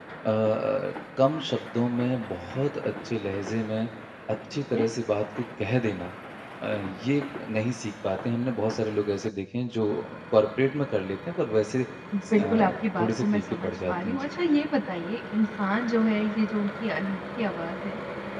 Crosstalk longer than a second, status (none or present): present